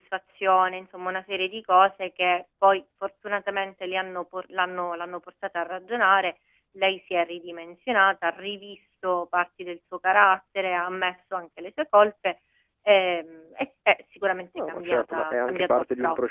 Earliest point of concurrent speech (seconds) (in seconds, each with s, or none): 14.6 s